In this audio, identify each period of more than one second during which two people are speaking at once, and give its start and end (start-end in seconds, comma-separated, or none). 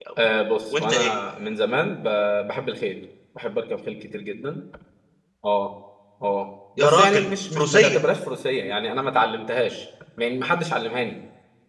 6.8-8.0